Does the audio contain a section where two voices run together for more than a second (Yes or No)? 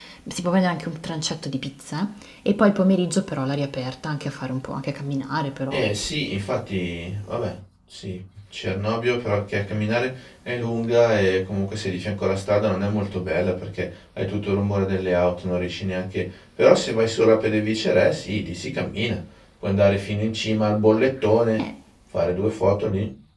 No